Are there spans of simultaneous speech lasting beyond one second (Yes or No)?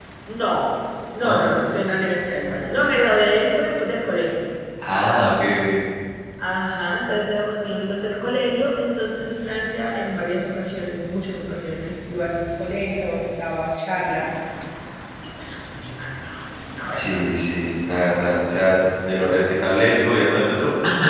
No